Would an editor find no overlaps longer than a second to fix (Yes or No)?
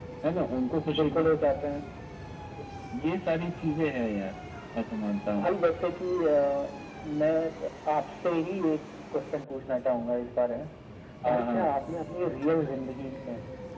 Yes